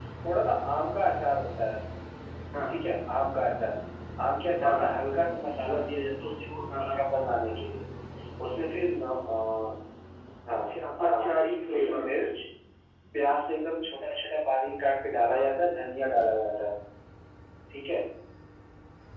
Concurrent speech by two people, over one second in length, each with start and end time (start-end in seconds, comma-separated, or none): none